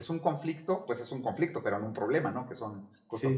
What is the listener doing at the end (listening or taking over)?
taking over